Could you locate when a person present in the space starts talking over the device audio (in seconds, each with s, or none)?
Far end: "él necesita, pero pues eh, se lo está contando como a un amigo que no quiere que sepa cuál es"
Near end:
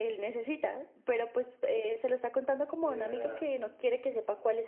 2.7 s